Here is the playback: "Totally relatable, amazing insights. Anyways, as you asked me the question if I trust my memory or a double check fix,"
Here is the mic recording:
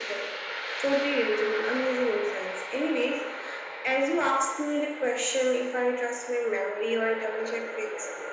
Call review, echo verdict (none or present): present